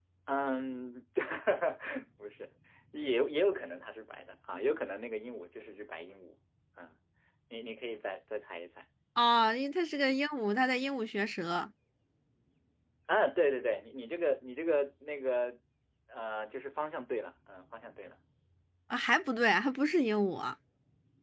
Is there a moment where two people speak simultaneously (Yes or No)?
No